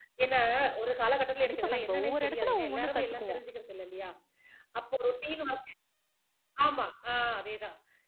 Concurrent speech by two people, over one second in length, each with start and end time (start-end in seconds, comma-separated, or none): 1.4-3.4